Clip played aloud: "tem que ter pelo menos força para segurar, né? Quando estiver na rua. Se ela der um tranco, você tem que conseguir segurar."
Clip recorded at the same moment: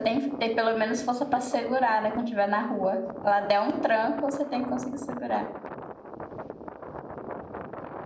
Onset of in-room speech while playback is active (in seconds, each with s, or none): none